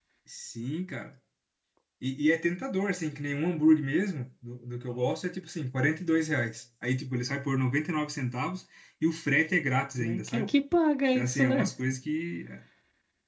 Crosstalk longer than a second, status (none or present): none